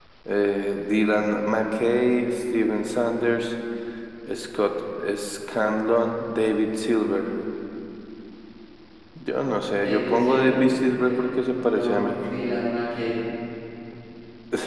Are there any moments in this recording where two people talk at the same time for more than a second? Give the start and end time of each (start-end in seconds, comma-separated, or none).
9.8-11.1